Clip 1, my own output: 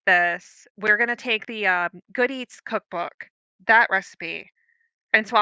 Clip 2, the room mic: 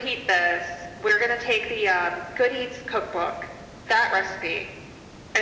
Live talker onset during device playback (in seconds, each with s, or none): none